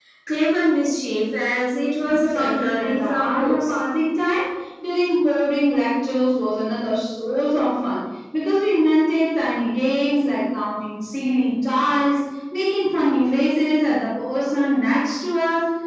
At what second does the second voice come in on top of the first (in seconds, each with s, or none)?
2.0 s